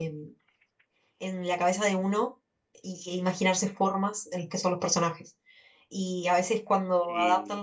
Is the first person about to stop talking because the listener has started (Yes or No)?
No